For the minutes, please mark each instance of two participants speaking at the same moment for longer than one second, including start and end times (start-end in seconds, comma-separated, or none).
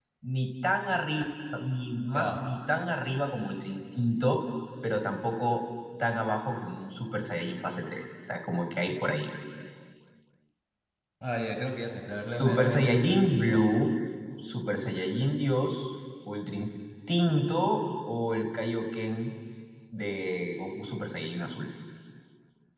12.4-13.6